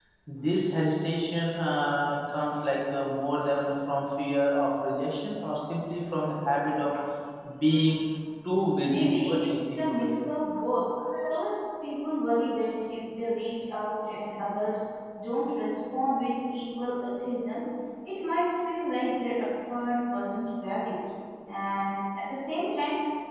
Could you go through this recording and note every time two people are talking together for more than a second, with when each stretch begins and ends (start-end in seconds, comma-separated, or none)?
8.8-10.3